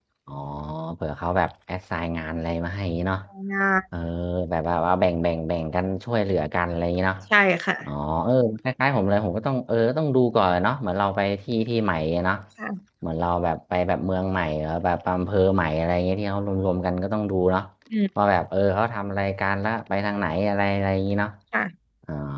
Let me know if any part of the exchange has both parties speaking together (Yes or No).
No